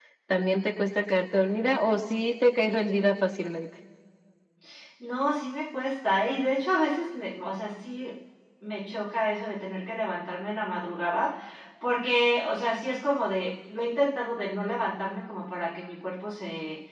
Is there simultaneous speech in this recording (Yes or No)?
No